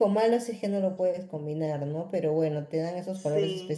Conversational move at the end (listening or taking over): listening